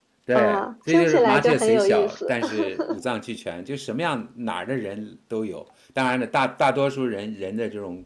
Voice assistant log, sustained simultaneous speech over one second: present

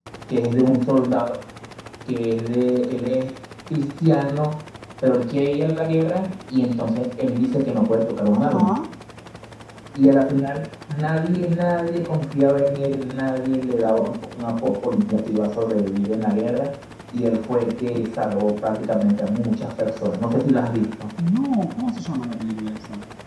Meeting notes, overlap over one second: none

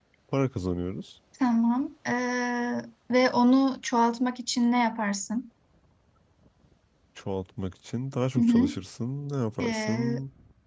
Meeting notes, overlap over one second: none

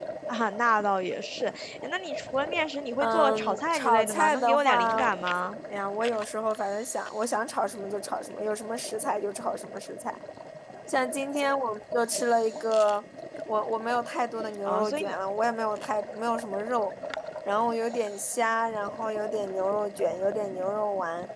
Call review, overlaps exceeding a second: present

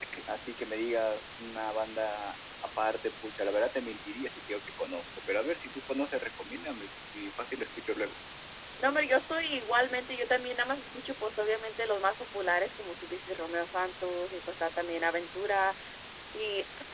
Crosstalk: none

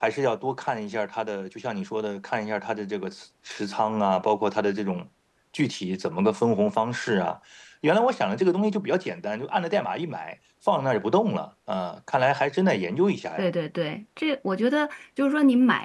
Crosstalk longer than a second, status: none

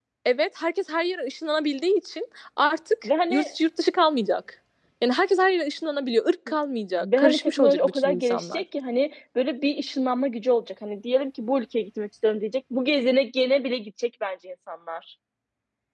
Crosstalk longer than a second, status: present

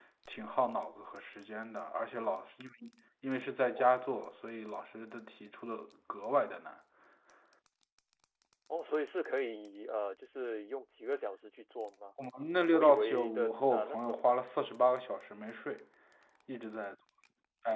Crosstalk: present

